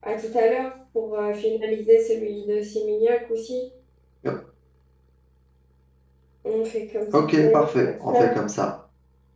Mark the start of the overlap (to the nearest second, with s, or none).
7 s